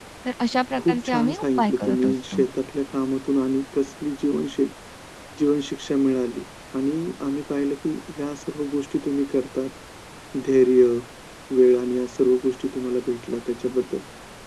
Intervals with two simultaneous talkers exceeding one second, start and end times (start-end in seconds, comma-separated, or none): 0.8-2.4